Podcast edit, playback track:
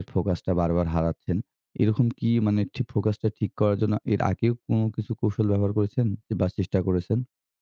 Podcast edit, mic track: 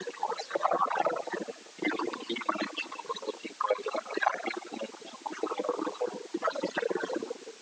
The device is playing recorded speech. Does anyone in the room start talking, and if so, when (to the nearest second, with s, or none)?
none